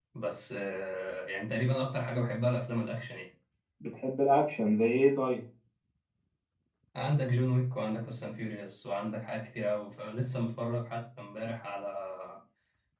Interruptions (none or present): none